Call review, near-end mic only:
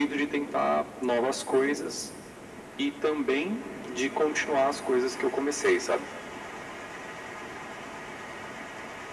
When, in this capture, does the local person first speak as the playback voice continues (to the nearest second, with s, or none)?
none